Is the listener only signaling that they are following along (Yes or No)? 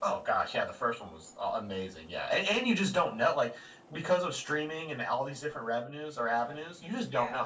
Yes